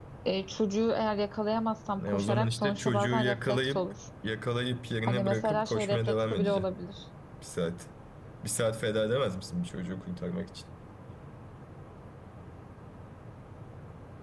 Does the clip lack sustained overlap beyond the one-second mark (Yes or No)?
No